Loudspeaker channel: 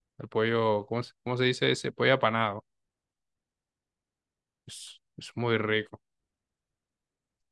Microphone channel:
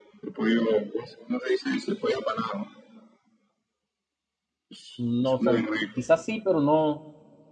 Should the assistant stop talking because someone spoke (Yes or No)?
Yes